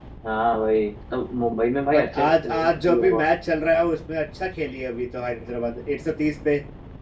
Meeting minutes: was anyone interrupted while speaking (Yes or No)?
Yes